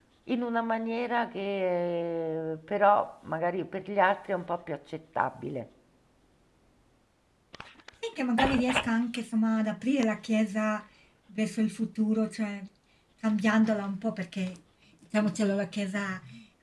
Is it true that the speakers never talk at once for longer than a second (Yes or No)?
Yes